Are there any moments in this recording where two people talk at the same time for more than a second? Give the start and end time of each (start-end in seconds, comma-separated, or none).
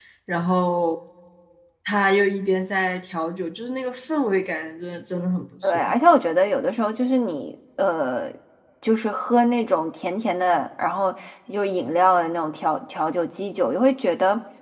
none